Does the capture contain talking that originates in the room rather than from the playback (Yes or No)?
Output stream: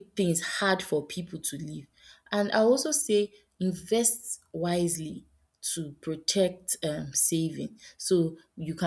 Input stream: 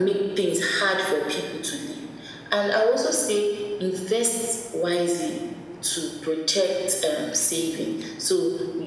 No